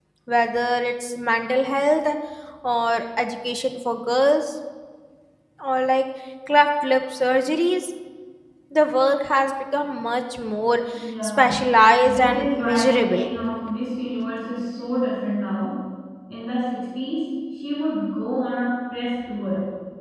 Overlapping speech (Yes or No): Yes